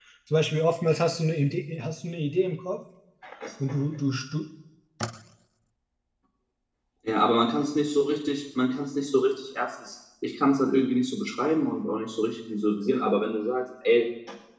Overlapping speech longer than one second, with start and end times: none

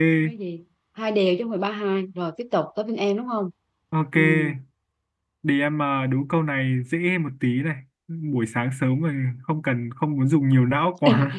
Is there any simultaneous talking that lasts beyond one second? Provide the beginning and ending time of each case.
none

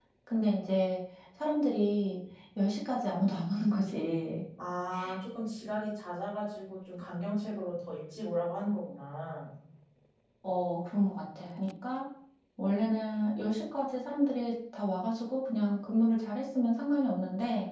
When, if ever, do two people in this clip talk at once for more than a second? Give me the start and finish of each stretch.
none

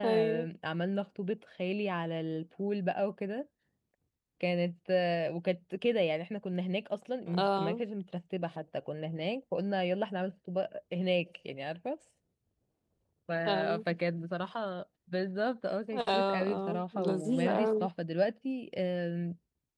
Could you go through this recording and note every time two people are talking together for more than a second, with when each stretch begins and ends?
16.1-17.9

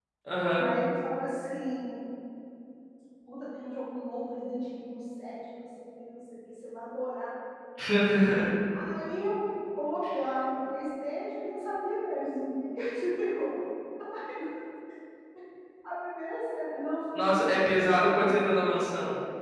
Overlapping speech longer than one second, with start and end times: 17.2-18.4

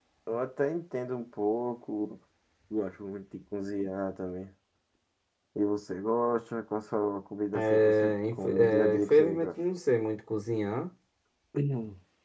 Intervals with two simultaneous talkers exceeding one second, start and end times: 7.5-9.5

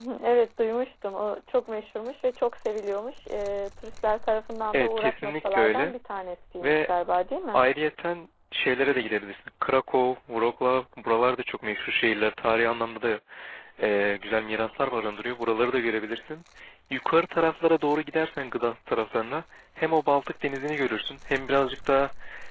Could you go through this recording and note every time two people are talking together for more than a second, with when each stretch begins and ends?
4.7-5.9

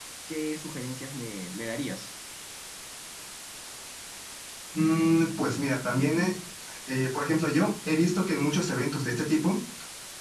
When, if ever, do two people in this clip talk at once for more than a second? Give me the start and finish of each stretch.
none

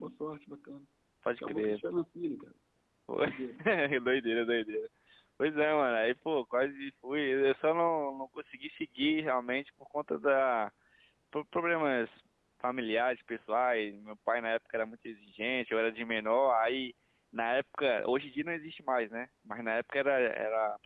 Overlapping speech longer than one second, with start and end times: none

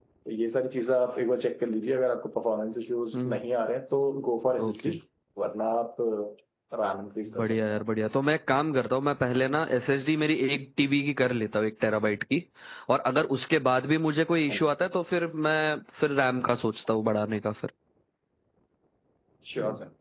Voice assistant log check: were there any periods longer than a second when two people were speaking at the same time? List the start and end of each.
none

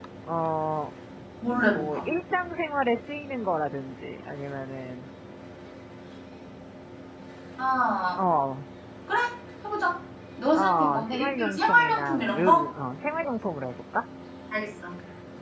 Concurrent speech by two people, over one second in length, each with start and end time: 10.6-12.7

